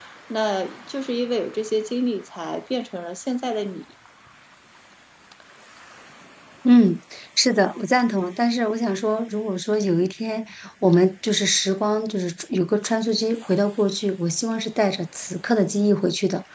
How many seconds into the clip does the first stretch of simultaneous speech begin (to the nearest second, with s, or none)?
none